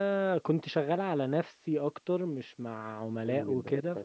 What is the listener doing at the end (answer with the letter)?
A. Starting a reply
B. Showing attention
A